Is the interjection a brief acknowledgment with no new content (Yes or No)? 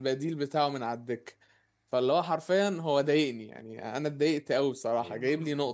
No